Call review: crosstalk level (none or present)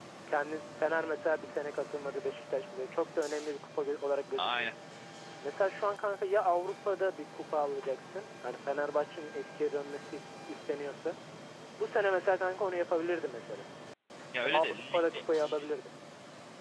present